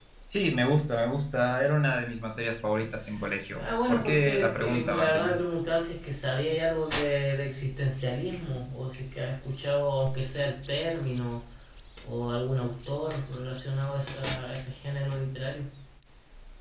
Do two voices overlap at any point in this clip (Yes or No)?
Yes